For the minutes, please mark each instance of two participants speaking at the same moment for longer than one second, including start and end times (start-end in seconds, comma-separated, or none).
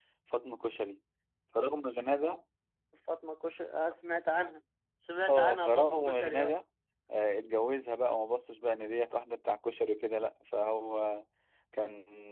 5.3-6.5